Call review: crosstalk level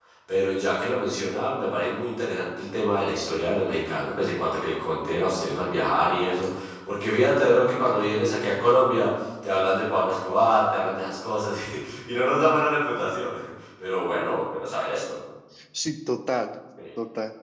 none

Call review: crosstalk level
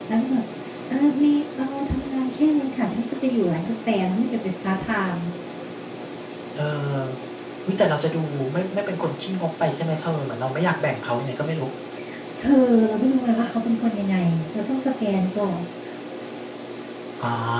none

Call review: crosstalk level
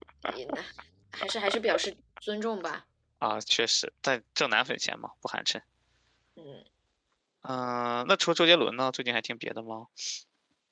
none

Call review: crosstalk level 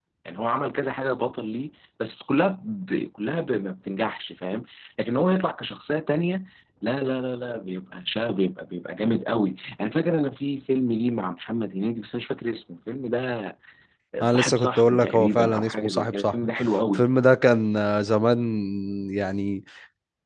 present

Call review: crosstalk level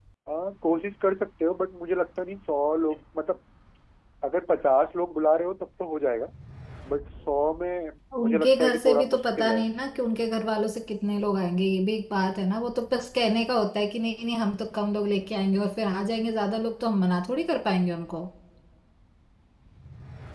present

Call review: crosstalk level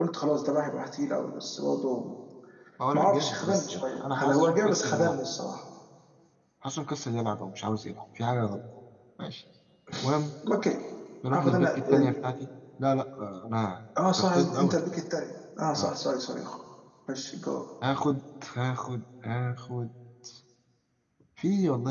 present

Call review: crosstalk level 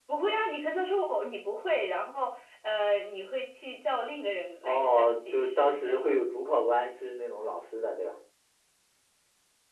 present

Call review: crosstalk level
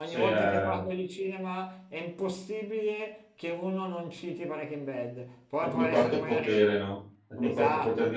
present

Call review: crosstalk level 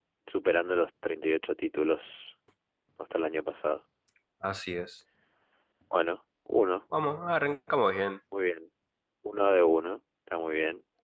none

